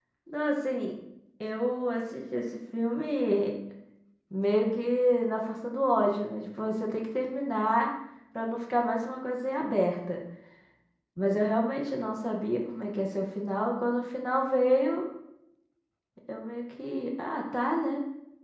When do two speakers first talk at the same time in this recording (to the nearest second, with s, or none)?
none